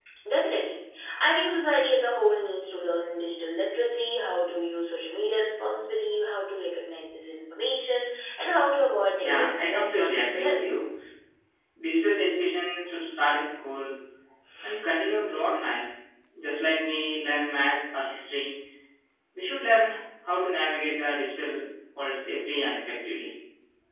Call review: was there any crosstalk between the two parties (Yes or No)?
Yes